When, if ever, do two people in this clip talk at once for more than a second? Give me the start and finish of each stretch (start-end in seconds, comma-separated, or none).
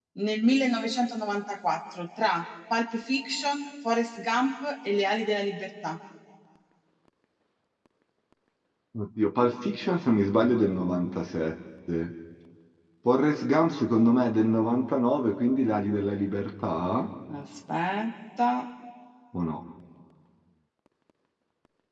none